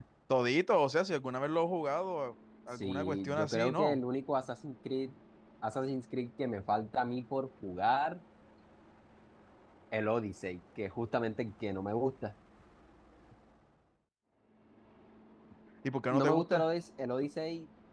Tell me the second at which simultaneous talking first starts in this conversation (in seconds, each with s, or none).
2.8 s